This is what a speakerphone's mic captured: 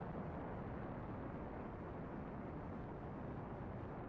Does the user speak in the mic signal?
No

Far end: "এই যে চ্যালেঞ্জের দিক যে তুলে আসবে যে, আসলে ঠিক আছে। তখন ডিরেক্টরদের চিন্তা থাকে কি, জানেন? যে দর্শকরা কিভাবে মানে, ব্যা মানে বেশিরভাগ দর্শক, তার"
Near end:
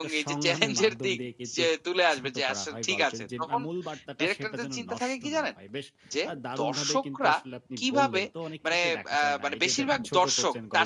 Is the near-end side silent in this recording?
No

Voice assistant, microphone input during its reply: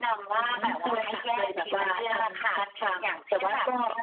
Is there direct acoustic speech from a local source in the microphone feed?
No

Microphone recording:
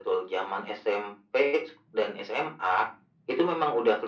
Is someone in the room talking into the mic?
No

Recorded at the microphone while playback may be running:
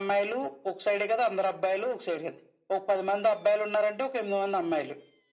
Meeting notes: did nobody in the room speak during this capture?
Yes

